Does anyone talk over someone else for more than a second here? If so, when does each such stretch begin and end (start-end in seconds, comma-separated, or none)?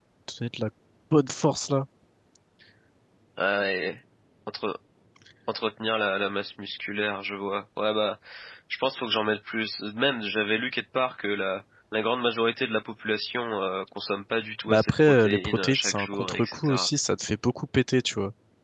14.7-16.9